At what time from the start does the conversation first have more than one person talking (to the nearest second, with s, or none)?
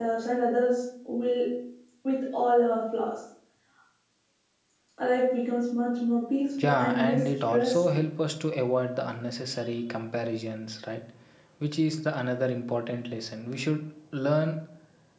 7 s